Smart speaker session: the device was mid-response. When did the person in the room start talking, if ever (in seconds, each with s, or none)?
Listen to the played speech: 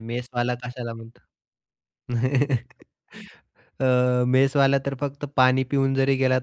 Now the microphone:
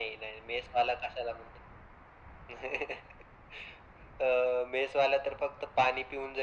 none